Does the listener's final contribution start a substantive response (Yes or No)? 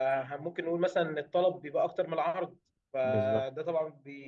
No